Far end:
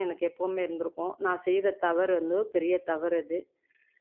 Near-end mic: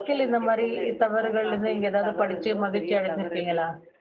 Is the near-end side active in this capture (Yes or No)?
Yes